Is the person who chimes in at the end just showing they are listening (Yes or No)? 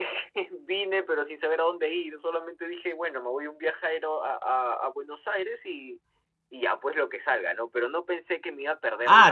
No